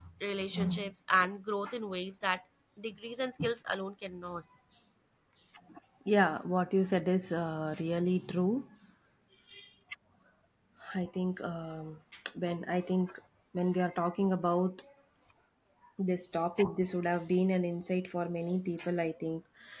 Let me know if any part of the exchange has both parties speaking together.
No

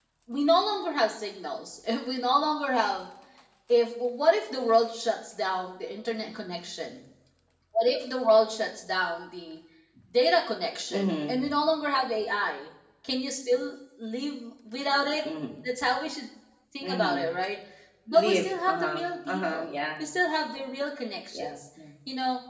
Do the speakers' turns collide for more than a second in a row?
Yes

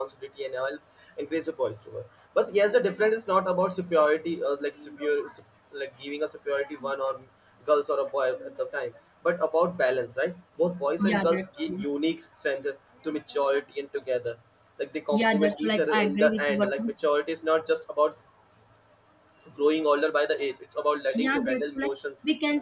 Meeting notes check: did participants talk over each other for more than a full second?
Yes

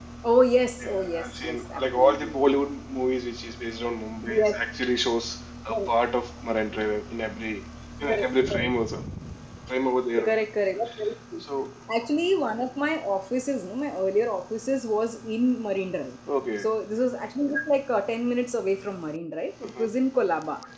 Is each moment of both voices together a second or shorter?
No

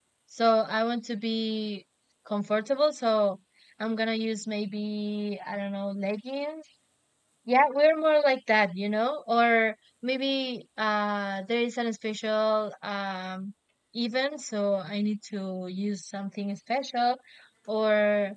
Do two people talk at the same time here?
No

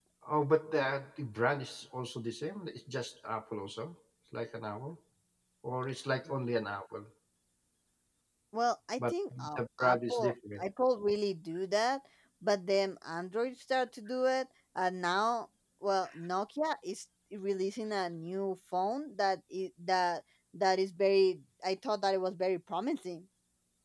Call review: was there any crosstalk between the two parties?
Yes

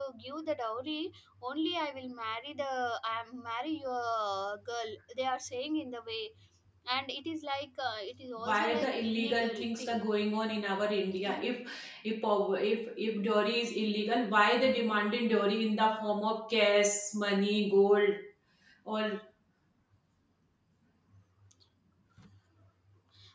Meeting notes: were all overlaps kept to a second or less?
No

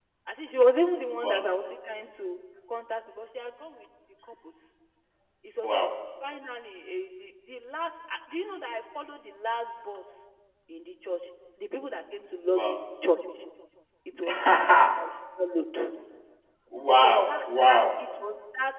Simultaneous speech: Yes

